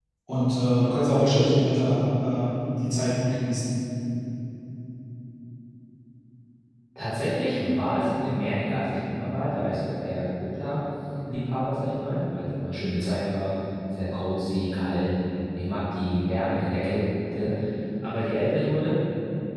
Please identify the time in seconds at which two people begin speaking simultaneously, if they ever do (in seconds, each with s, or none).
none